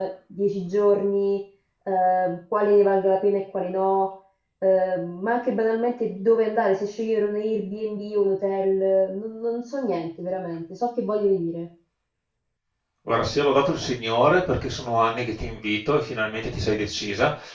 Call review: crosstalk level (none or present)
none